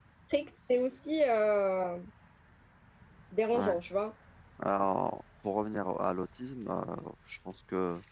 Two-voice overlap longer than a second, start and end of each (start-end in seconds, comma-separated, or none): none